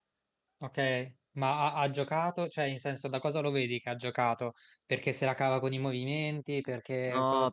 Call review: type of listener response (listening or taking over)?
taking over